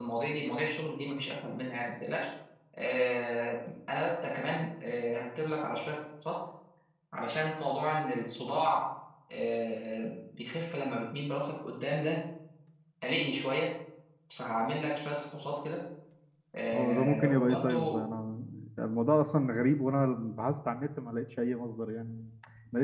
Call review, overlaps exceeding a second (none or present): present